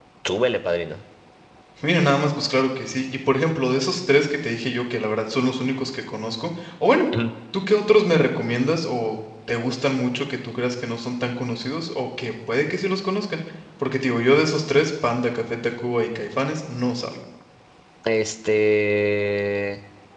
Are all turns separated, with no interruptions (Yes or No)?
Yes